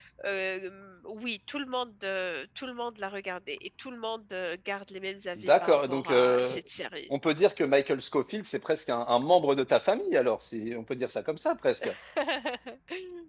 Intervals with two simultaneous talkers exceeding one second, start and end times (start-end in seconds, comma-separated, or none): 5.4-6.6